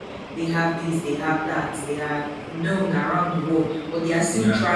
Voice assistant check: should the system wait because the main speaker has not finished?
Yes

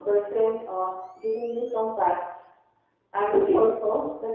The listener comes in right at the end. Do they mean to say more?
No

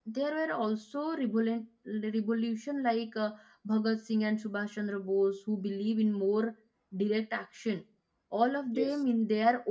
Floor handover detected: No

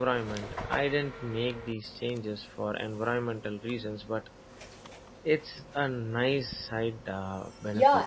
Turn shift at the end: Yes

